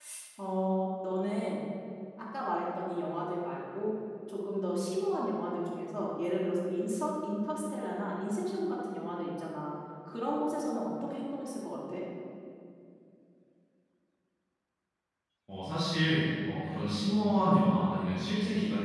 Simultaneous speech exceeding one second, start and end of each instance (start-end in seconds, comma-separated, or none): none